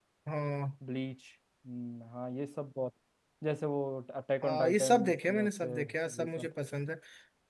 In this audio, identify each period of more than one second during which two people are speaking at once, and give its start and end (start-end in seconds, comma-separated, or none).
4.4-6.5